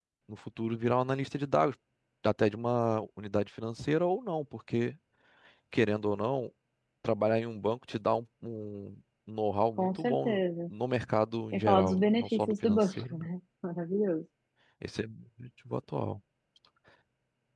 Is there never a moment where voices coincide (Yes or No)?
No